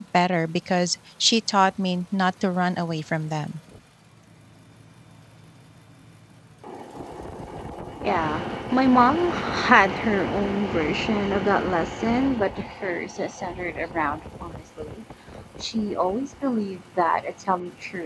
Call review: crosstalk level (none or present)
none